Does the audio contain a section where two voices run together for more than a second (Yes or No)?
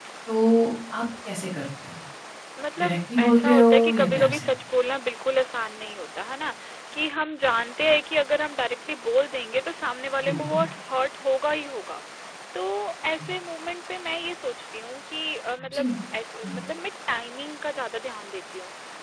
Yes